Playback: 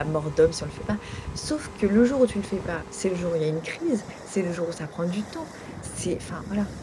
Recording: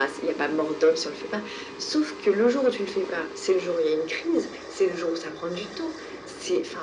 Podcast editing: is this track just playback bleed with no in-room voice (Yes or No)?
Yes